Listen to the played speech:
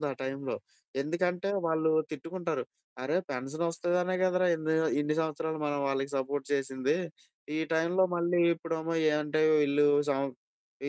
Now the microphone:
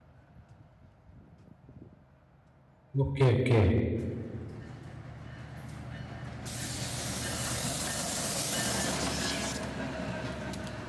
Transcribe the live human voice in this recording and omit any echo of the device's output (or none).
ఓకే. ఓకే.